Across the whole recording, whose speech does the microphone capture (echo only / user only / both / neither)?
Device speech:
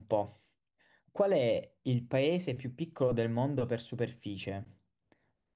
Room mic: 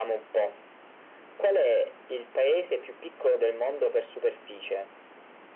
echo only